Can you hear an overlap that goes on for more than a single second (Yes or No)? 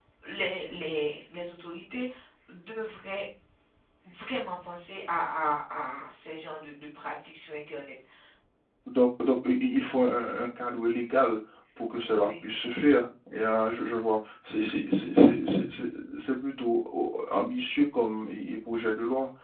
No